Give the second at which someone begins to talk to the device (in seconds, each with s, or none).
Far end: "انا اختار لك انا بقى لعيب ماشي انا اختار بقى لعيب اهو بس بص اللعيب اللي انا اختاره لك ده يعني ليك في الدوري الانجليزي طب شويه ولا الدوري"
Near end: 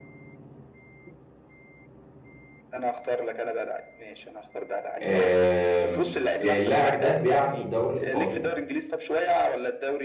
5.0 s